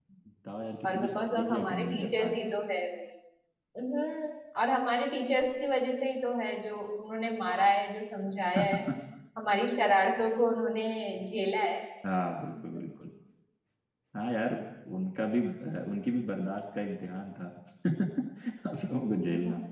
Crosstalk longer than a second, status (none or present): present